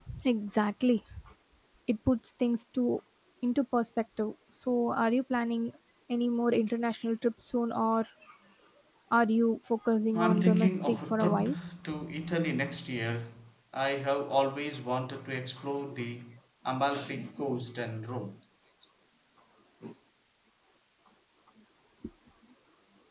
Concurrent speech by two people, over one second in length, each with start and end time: 10.1-11.5

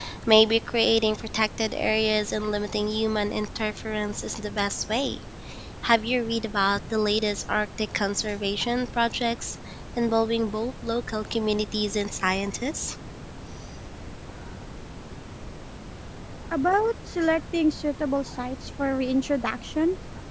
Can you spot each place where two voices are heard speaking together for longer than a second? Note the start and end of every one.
none

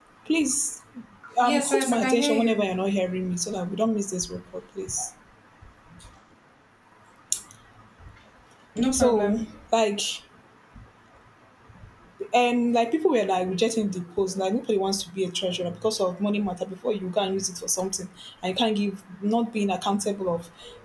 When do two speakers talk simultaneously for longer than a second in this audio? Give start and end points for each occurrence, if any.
1.4-2.6

